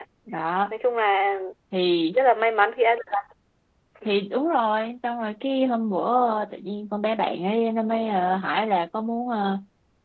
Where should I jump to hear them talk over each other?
none

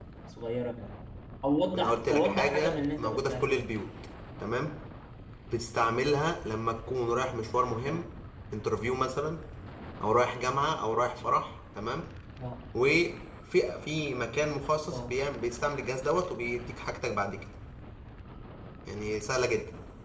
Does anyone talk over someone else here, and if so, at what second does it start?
1.7 s

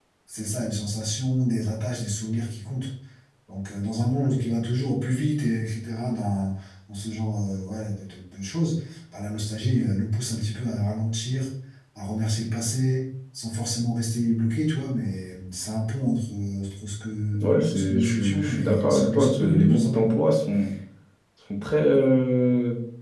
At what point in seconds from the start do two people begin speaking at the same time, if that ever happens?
17.3 s

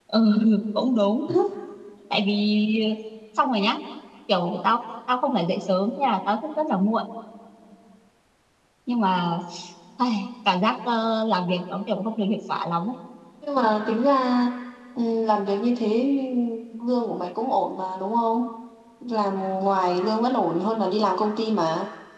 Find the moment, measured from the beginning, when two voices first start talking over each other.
none

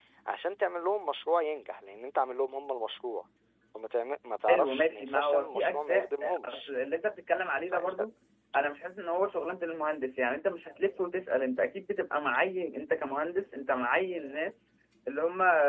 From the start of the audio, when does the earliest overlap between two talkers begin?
4.5 s

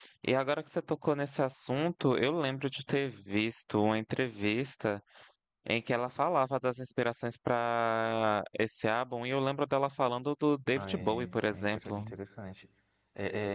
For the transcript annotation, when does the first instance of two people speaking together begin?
10.8 s

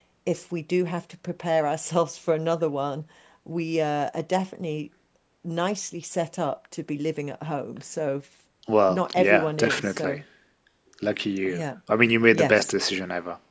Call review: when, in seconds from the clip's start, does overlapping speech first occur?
8.9 s

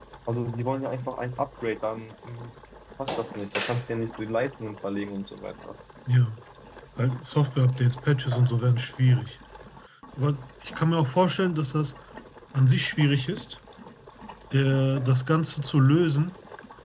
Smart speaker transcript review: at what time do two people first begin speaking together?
none

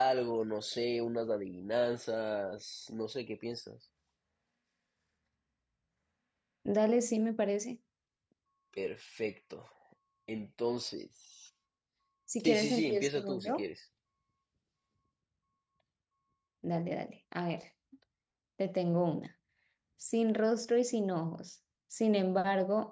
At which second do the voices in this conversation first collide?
12.4 s

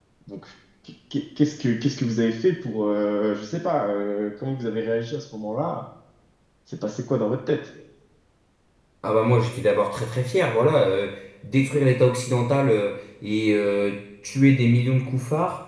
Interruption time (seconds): none

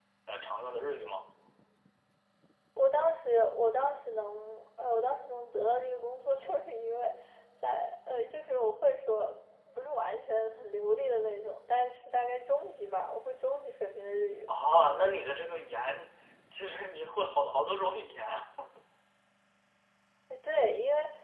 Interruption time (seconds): none

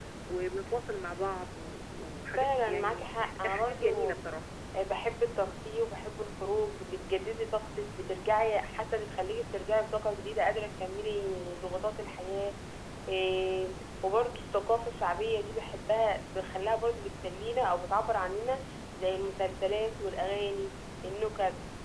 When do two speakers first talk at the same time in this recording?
2.4 s

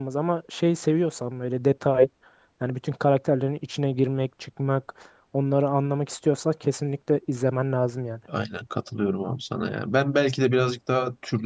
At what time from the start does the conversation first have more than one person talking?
none

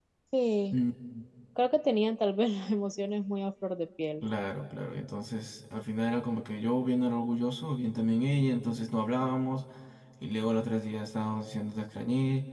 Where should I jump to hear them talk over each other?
none

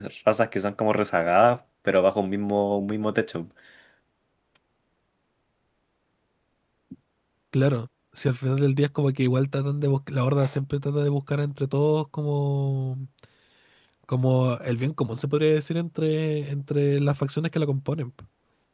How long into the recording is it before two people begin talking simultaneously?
none

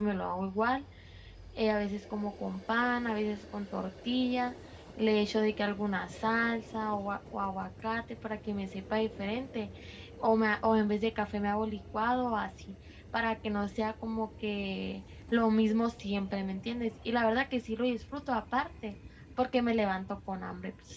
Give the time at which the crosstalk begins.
none

